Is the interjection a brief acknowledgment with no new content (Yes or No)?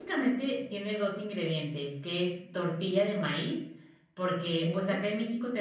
Yes